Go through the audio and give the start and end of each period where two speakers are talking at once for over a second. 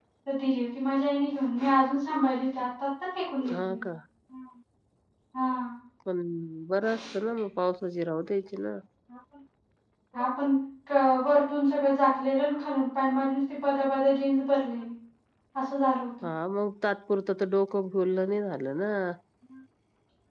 none

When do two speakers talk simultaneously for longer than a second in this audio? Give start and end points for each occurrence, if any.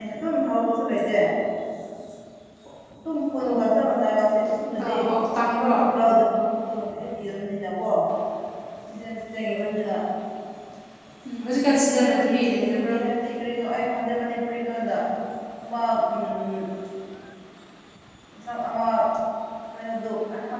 11.6-13.0

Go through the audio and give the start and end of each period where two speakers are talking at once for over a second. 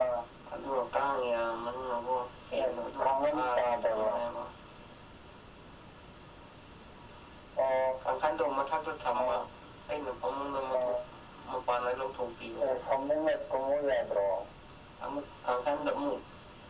2.6-4.1

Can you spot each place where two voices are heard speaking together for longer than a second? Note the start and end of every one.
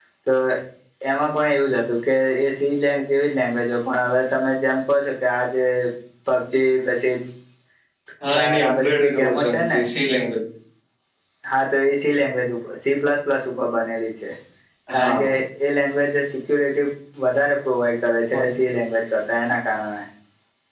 8.3-9.8

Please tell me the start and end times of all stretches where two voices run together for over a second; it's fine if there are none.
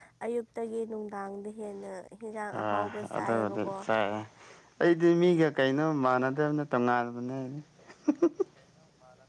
2.5-3.7

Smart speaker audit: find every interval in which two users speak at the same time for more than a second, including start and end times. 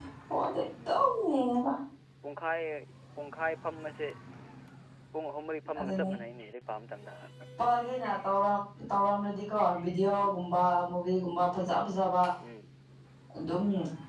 none

